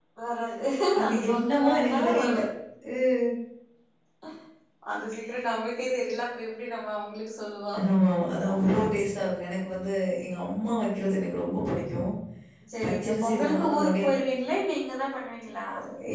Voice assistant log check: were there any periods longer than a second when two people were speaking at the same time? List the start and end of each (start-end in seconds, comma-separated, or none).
1.1-2.4, 12.8-14.1